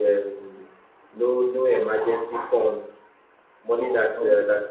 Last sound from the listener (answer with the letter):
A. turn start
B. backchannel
B